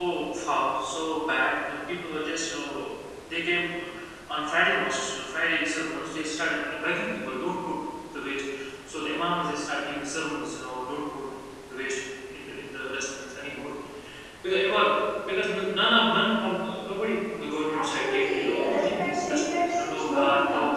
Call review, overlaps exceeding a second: present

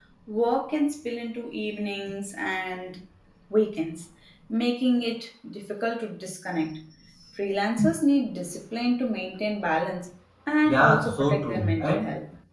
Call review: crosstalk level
present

